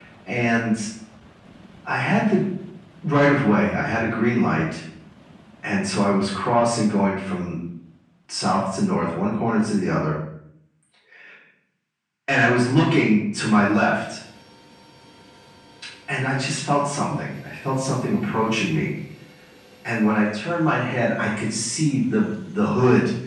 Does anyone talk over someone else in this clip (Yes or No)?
No